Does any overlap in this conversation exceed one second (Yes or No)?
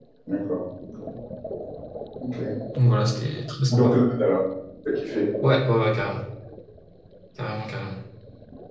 No